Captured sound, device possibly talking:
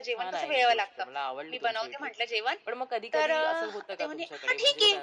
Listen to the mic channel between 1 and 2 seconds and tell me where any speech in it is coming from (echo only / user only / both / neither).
echo only